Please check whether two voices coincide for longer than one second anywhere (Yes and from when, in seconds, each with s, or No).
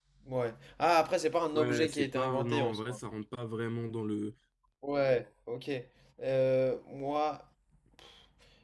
Yes, from 1.5 s